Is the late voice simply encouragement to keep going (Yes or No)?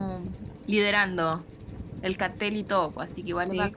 No